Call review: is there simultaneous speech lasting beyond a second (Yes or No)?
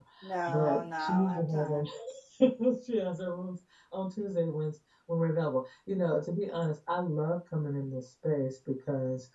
Yes